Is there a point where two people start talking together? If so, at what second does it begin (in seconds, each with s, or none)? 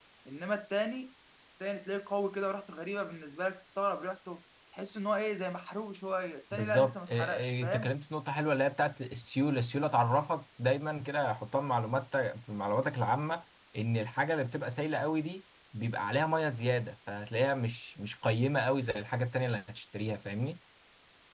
6.5 s